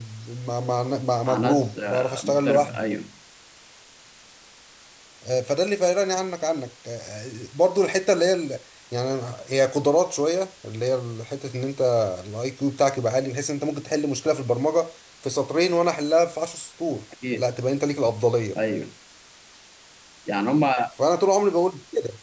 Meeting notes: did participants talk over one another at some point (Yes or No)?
Yes